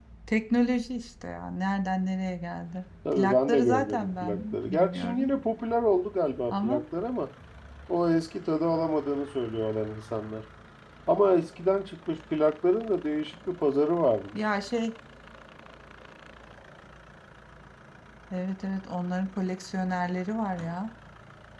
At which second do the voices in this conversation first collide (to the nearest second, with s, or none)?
3 s